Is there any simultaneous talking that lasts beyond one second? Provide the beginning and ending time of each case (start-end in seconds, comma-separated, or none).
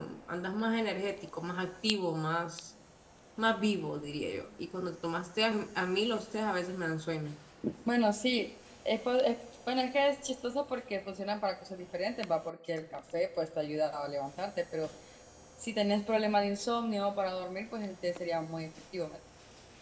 none